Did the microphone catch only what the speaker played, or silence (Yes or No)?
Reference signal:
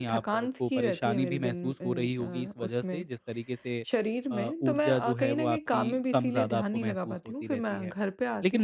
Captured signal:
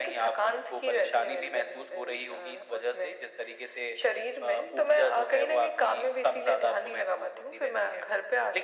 Yes